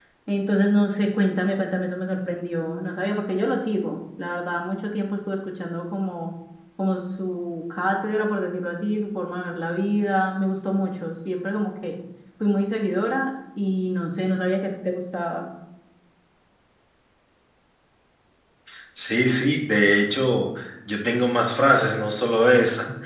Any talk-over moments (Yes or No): No